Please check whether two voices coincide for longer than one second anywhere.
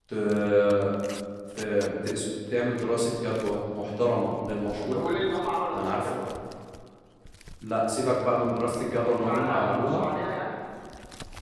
Yes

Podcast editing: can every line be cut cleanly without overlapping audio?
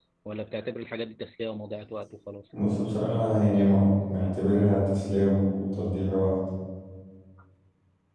Yes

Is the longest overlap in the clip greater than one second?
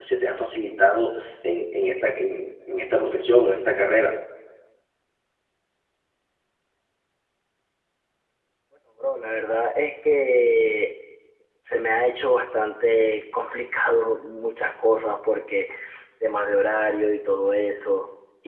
No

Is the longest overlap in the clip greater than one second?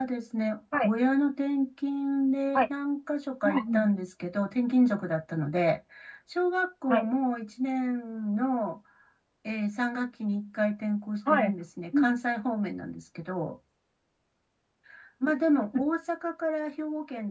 No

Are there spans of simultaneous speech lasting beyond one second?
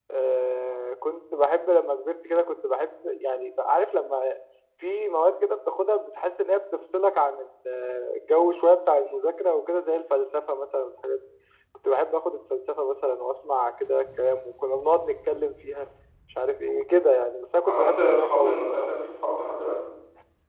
Yes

